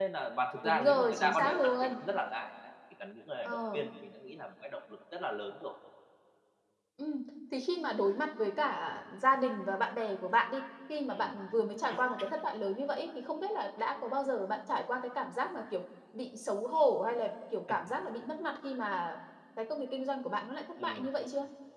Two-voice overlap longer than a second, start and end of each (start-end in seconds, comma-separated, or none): 0.6-2.0